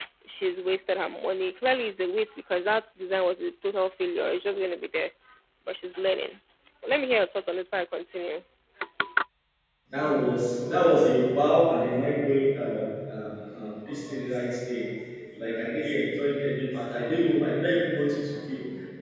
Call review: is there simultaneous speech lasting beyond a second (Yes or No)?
No